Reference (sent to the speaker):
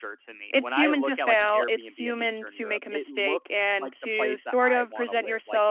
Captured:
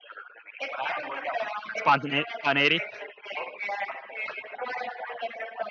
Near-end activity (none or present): present